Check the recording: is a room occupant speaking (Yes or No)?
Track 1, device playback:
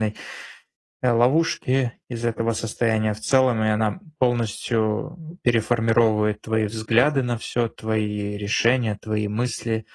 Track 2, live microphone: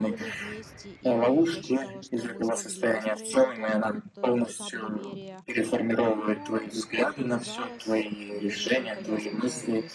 Yes